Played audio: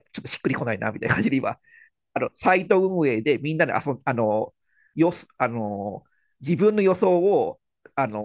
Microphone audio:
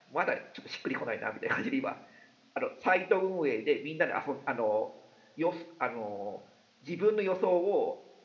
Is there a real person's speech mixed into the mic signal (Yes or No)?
No